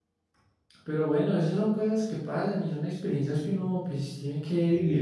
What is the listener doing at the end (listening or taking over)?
taking over